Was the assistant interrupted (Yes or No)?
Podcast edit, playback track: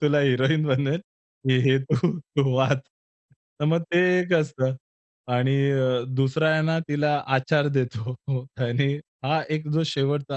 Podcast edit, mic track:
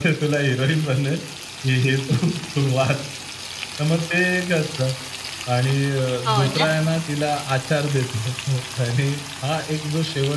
Yes